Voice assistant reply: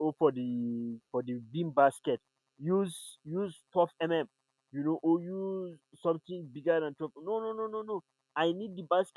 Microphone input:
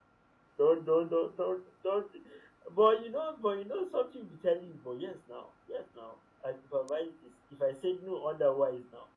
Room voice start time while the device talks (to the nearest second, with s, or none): 1 s